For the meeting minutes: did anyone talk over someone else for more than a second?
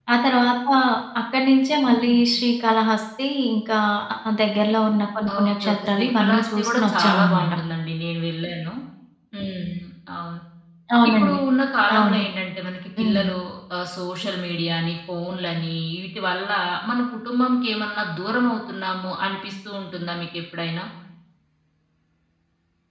Yes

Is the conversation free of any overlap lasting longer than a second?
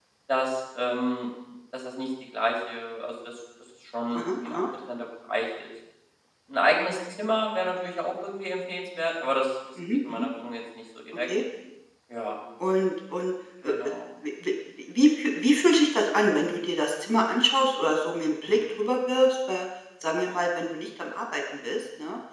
Yes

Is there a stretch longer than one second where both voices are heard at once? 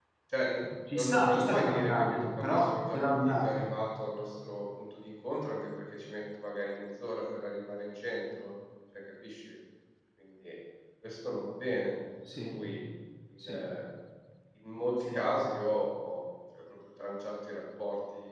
Yes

